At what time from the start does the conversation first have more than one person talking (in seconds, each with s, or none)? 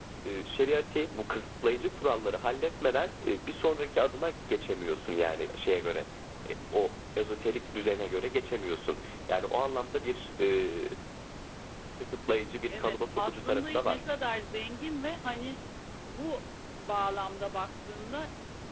12.7 s